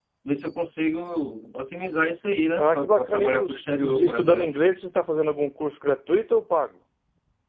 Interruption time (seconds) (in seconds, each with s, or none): 2.6 s